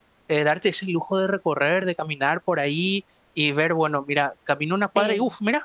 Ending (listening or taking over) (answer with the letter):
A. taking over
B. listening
B